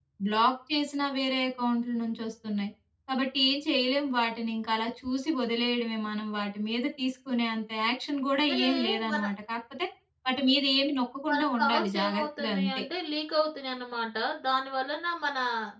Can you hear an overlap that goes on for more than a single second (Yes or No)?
Yes